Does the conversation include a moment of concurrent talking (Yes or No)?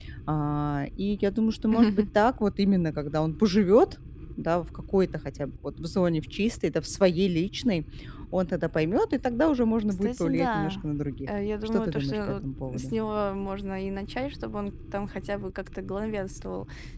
Yes